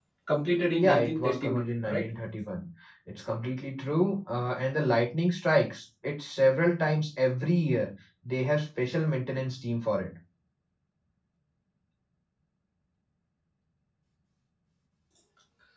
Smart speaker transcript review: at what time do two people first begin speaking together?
0.8 s

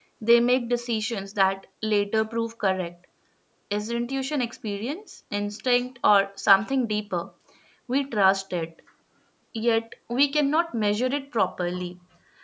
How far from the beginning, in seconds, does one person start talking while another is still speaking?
none

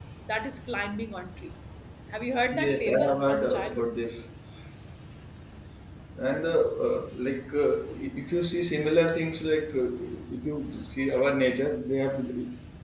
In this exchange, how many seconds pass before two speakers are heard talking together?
2.6 s

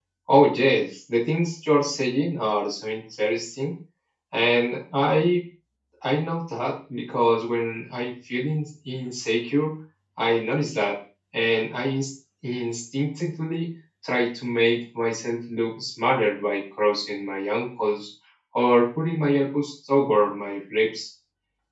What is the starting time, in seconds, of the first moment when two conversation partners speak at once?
none

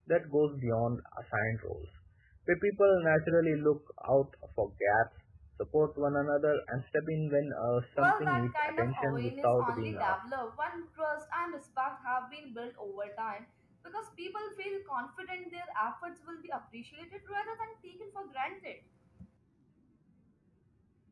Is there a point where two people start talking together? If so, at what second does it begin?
8.0 s

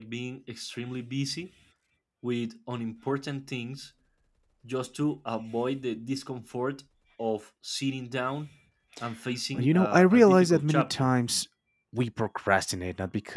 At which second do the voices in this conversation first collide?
9.5 s

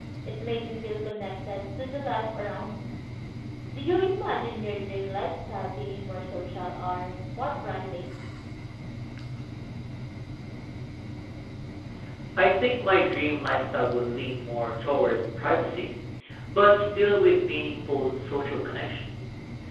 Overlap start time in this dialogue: none

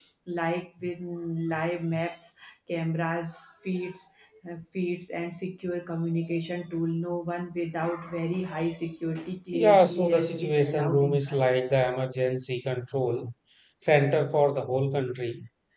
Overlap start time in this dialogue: 9.5 s

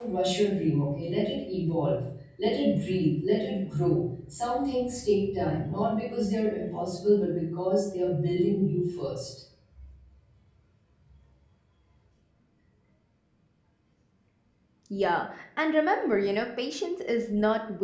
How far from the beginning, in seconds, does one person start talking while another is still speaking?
none

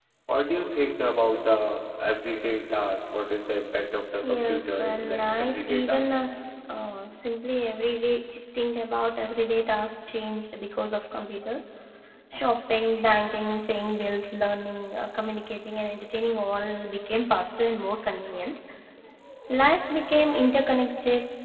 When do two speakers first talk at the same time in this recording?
4.2 s

